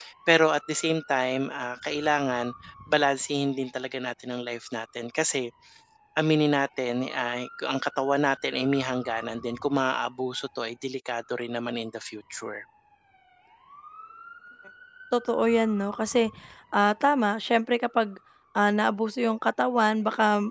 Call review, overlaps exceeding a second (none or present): none